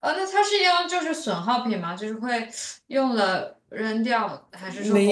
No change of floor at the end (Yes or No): No